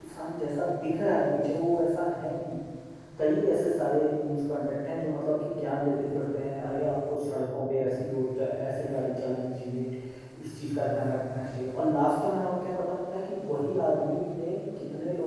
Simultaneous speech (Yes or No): No